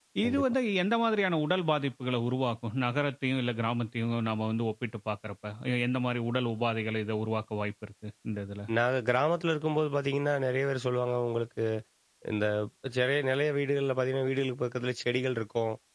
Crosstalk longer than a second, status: none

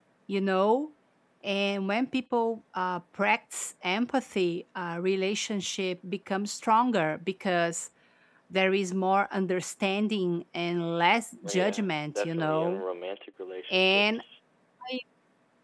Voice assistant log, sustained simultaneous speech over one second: present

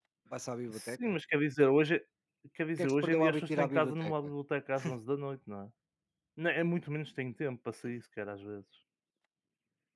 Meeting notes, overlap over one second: present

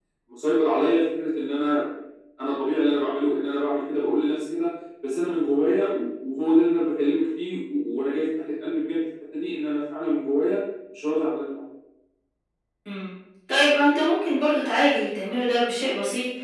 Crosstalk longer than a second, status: none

